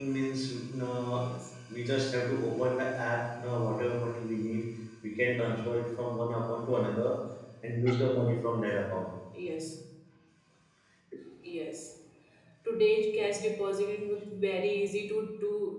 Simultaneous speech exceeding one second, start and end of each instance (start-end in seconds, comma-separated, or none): none